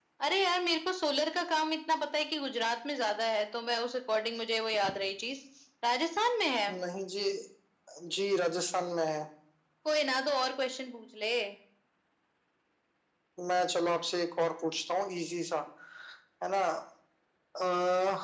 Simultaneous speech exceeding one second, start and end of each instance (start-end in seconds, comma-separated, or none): none